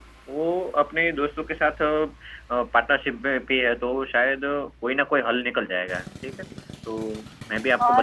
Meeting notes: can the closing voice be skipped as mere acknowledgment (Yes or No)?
No